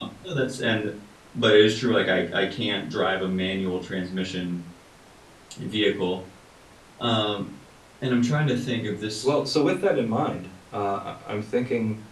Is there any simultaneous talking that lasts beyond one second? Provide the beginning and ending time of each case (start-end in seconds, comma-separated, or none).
none